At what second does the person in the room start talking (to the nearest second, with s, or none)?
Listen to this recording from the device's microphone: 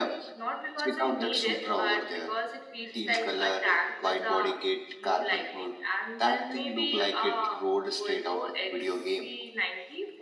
none